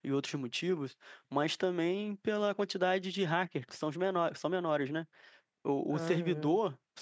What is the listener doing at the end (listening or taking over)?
listening